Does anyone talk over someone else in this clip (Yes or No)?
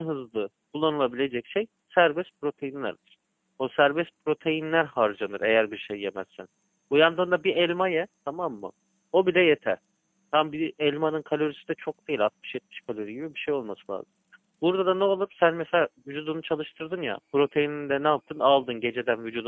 No